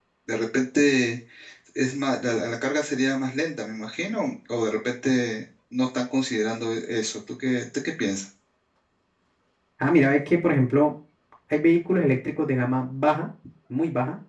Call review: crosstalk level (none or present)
none